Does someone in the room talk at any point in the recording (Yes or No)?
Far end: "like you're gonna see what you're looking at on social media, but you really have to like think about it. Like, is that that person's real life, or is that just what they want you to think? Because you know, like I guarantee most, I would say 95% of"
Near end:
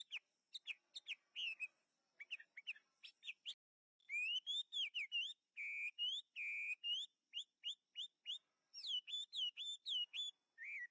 No